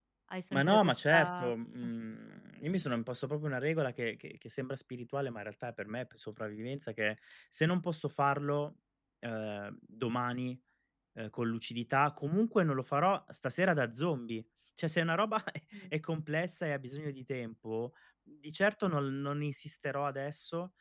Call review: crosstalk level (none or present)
present